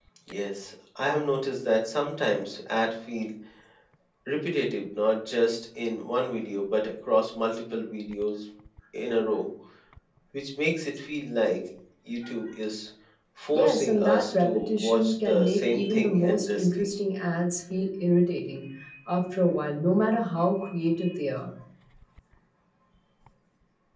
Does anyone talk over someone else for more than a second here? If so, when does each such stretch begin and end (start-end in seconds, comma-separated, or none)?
13.5-16.9